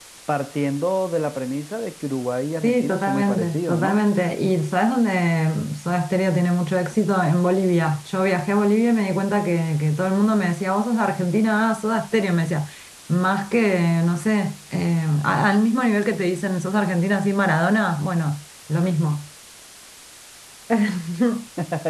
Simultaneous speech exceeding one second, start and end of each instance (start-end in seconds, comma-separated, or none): 2.6-4.0